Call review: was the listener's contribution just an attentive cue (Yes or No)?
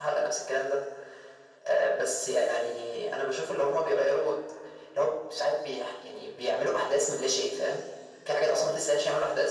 Yes